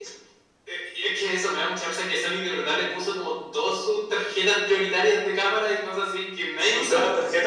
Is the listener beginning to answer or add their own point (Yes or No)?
Yes